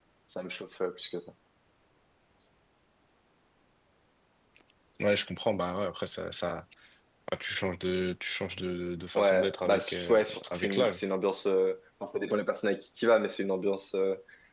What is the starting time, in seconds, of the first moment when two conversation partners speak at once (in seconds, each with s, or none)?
9.2 s